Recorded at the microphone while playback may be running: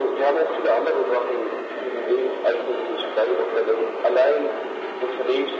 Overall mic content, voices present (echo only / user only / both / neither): echo only